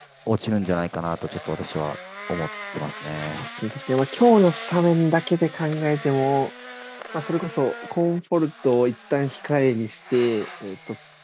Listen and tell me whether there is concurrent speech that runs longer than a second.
No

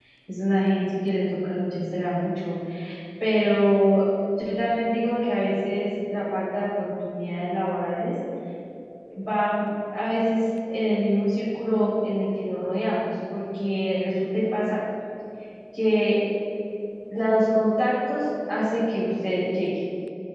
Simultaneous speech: No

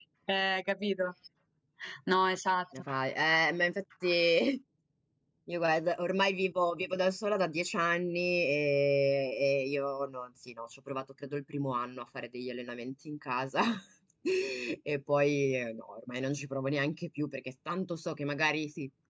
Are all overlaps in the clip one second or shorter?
Yes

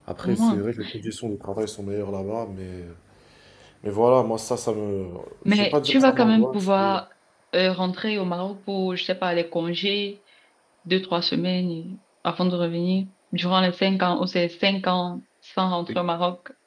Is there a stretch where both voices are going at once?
Yes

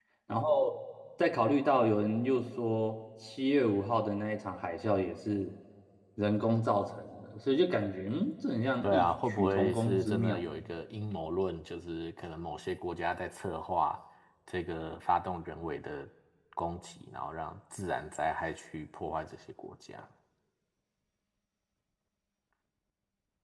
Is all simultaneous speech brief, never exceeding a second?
No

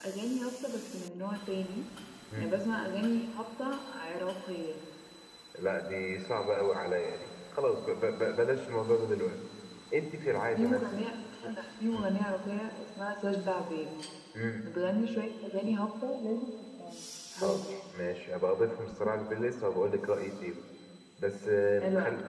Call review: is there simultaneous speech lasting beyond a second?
No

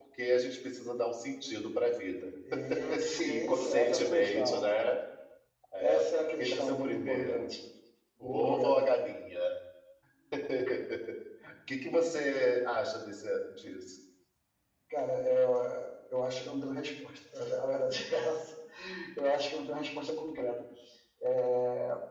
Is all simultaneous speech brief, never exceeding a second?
No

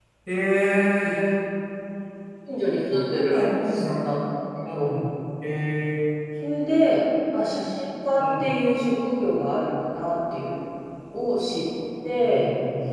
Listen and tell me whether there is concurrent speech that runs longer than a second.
Yes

